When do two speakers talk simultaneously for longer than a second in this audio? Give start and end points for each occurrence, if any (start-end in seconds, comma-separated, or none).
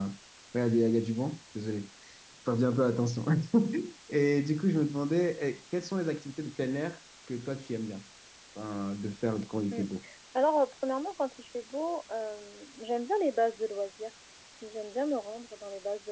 none